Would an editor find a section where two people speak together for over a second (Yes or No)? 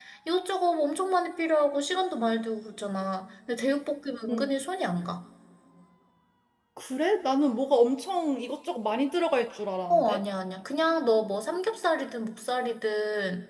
No